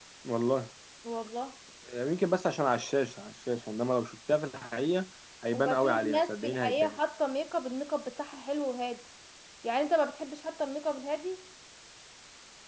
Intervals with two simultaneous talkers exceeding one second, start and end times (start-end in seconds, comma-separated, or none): 5.5-7.0